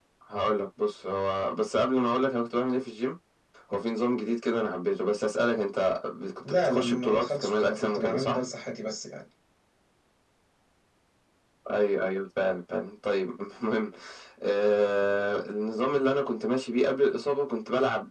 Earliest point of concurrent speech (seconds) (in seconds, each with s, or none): 6.4 s